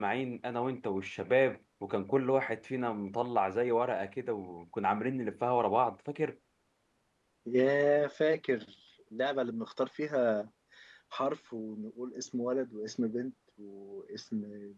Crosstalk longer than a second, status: none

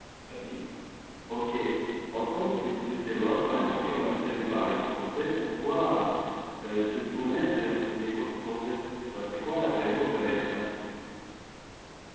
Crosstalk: present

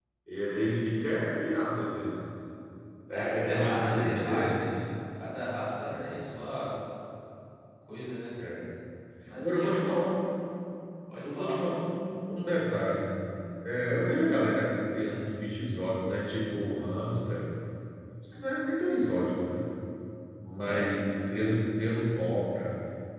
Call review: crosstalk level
present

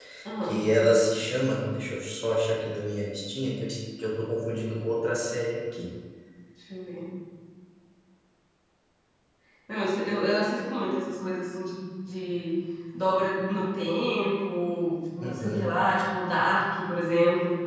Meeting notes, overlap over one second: none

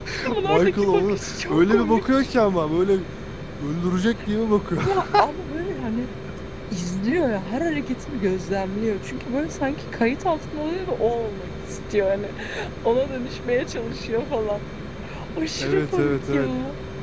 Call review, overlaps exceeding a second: present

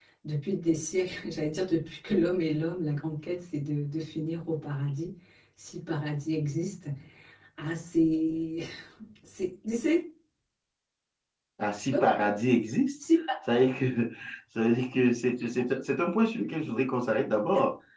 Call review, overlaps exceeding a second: none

